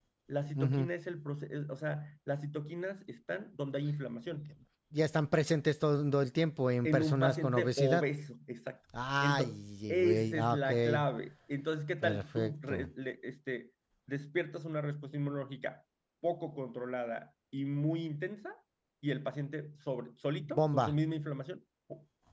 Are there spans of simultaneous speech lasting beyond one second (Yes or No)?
Yes